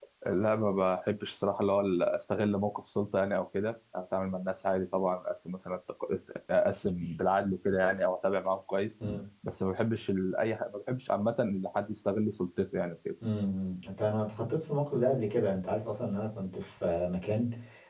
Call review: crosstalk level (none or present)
none